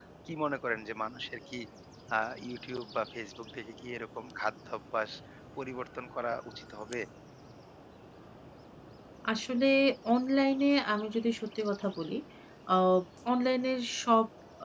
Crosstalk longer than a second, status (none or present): none